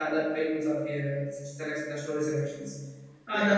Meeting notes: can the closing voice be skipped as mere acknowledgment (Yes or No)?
No